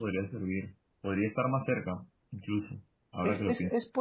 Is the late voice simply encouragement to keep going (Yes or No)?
No